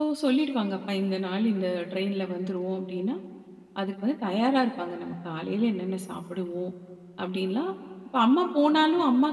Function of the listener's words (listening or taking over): listening